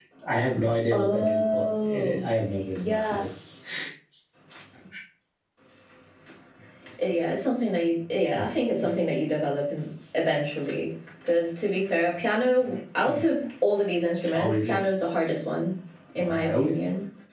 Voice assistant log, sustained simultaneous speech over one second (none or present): present